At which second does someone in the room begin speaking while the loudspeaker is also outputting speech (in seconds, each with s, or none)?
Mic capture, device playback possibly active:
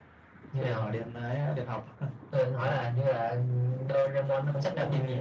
none